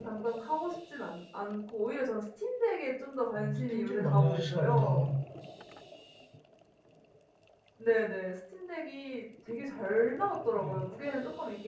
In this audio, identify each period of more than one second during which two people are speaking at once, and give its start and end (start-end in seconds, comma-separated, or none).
3.4-5.1